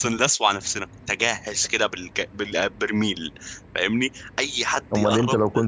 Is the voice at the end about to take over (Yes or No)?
Yes